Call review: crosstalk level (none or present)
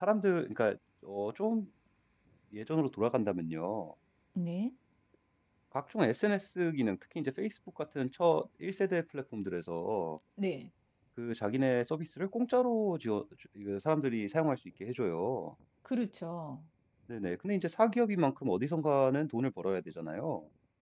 none